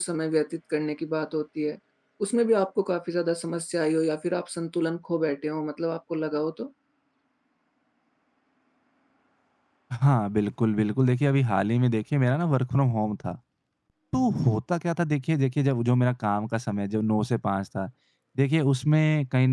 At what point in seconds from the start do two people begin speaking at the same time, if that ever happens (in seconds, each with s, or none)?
none